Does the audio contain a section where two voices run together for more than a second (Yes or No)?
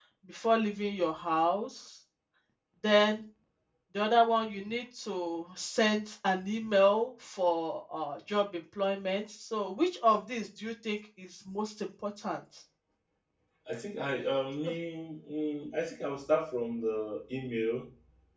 No